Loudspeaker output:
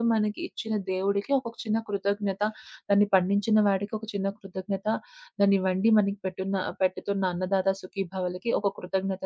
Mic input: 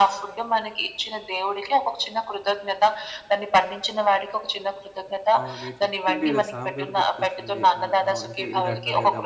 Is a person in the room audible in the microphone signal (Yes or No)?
Yes